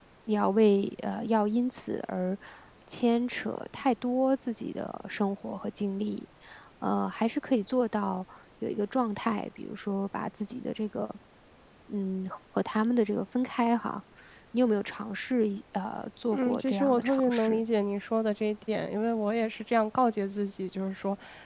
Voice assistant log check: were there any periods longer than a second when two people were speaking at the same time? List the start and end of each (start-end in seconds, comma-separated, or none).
16.3-17.6